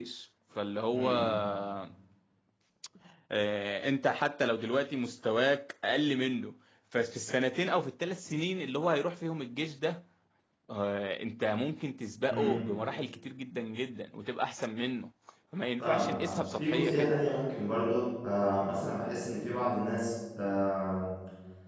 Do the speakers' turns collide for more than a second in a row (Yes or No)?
Yes